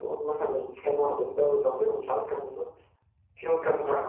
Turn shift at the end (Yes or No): No